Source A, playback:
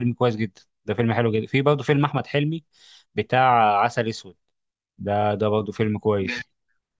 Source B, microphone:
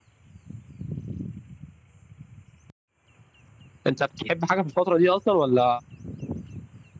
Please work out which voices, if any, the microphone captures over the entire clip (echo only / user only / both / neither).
user only